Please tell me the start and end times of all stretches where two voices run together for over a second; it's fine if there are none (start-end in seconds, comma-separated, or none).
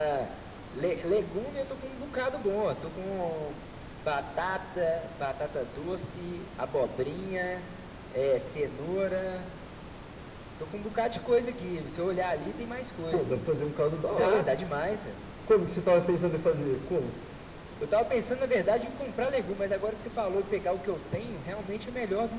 none